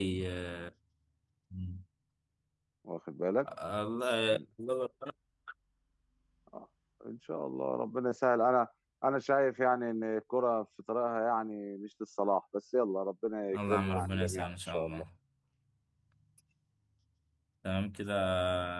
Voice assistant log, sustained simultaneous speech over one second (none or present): present